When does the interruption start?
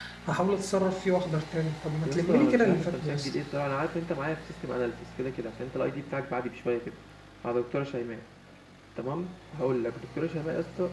2.0 s

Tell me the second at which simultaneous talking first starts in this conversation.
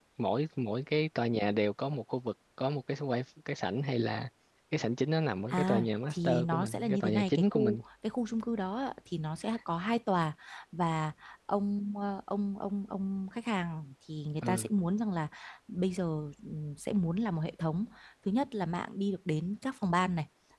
5.5 s

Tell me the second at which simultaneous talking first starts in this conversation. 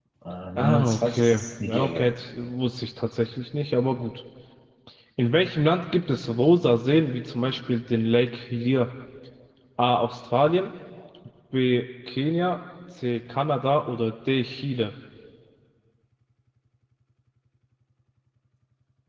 0.6 s

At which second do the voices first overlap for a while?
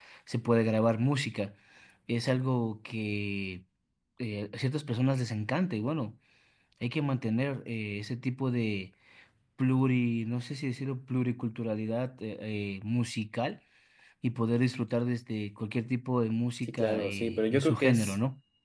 16.7 s

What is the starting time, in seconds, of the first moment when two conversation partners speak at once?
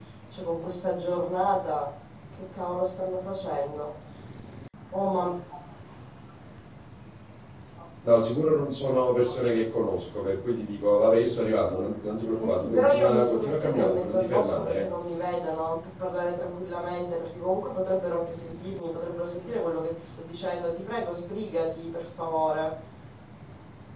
12.4 s

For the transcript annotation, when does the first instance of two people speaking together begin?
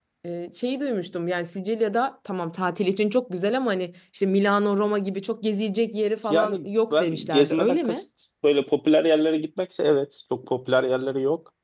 6.3 s

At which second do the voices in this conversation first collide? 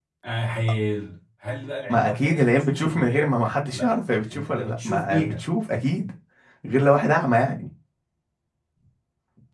1.9 s

